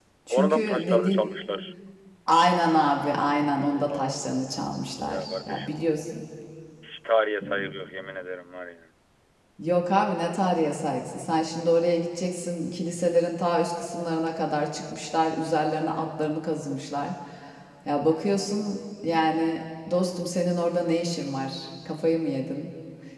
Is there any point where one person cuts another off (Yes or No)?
Yes